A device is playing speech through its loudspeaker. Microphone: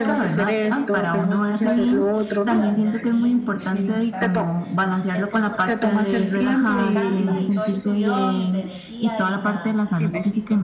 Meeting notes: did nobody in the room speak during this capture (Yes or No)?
No